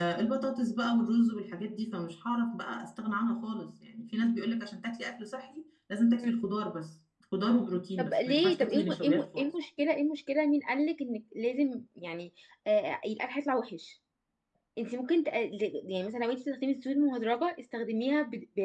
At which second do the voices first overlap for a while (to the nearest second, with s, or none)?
8 s